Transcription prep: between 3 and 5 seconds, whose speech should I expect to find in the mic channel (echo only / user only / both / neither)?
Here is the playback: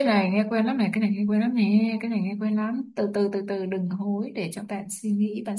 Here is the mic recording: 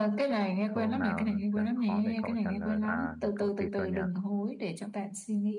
both